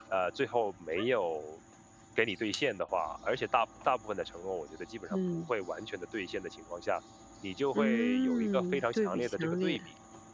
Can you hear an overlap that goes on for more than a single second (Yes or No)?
Yes